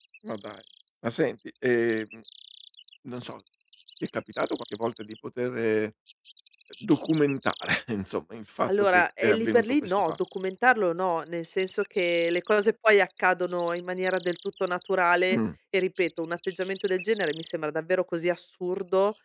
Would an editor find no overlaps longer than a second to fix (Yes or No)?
No